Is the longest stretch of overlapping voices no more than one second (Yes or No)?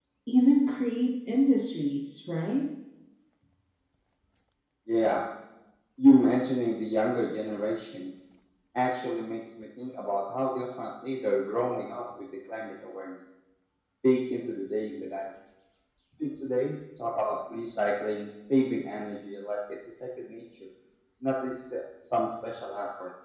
Yes